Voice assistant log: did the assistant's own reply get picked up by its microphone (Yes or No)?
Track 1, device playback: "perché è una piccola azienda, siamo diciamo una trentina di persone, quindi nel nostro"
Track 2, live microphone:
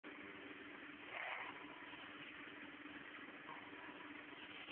No